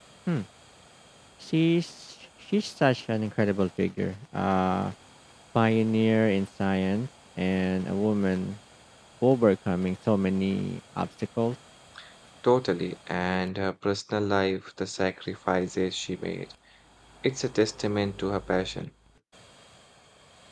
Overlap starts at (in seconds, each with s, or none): none